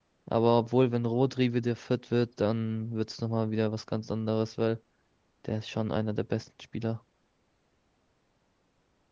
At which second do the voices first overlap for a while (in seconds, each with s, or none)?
none